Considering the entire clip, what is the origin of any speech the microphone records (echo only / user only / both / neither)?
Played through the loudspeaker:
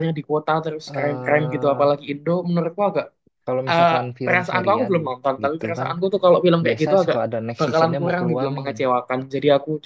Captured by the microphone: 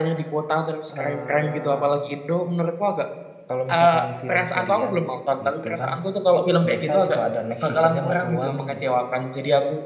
echo only